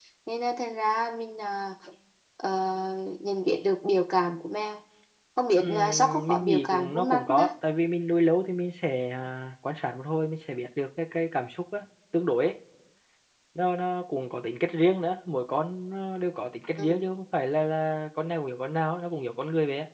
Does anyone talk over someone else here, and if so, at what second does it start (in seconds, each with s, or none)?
5.6 s